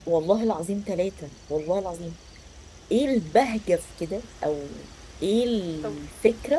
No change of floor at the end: Yes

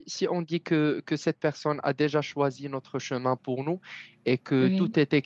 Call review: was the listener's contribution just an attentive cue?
Yes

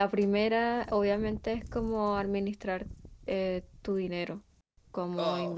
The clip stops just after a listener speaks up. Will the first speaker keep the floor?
Yes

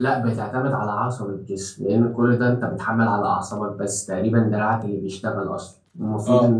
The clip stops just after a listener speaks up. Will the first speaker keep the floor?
Yes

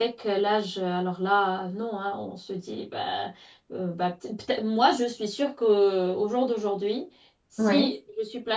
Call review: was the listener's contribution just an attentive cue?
Yes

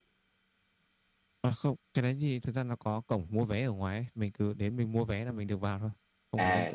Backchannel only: No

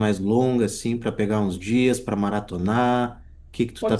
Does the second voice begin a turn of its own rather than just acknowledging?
Yes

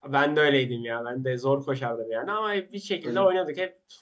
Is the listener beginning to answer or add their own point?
No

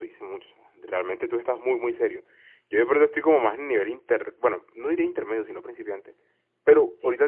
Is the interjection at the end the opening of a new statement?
No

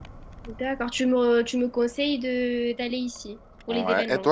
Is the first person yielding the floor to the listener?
Yes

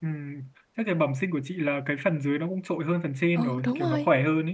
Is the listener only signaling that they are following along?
No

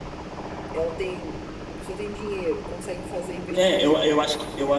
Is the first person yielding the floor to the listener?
Yes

